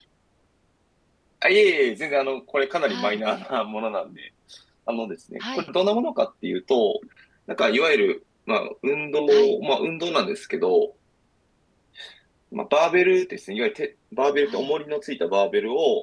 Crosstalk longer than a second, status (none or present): none